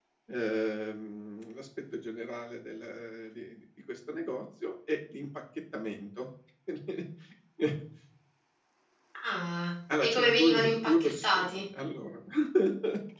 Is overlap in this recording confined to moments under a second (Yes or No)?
No